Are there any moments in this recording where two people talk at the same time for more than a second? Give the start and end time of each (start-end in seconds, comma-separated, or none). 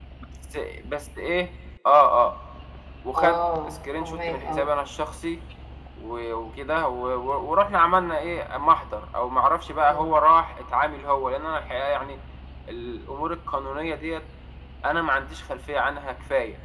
3.2-4.7